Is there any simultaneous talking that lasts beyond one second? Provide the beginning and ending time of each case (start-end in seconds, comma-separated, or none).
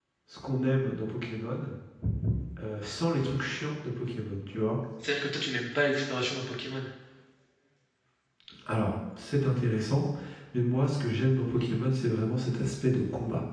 none